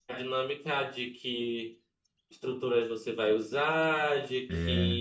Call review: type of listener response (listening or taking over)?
listening